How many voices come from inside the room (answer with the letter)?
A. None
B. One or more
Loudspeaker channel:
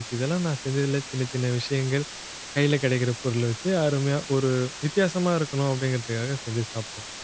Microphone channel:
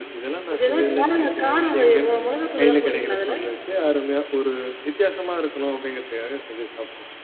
B